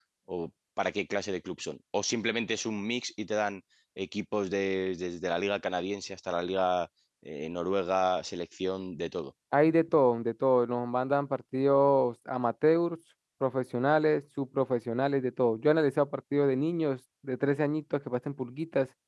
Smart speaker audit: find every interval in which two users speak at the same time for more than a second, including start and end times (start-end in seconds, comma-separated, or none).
none